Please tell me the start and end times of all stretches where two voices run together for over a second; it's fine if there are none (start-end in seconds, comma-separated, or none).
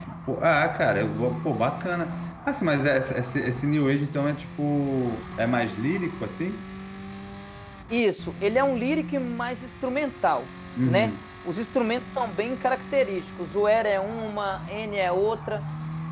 none